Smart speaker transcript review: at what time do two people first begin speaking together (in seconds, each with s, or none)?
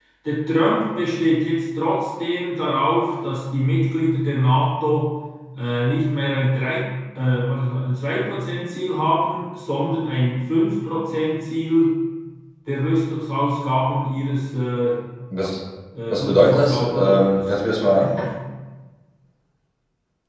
16.1 s